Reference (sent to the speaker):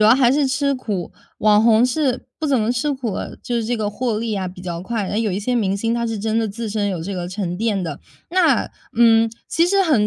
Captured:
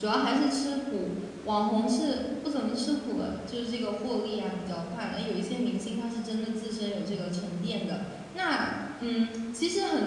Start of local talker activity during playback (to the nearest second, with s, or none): none